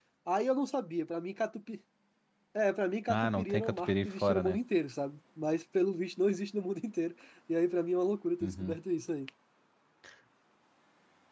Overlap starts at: 3.1 s

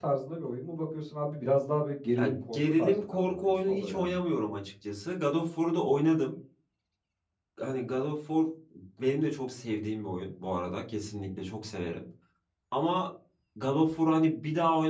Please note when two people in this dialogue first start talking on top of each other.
2.1 s

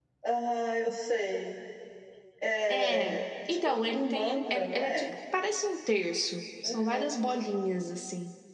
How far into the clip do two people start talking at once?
2.7 s

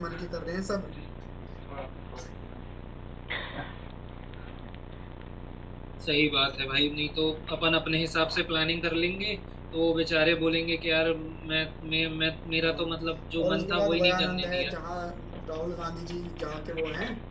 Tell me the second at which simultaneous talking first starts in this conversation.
12.6 s

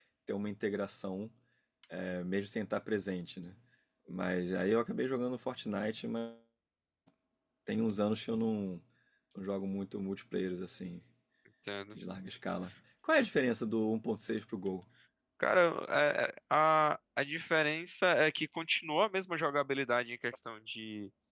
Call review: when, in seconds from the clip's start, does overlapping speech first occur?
none

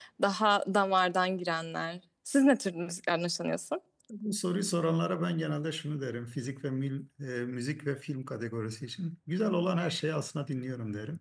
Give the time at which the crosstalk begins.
none

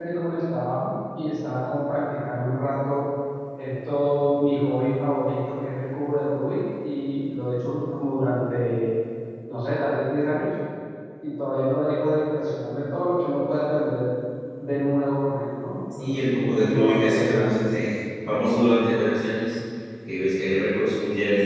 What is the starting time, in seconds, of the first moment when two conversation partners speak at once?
15.9 s

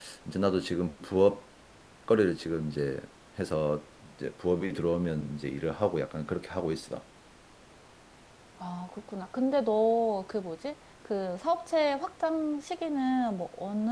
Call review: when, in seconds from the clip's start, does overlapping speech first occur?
none

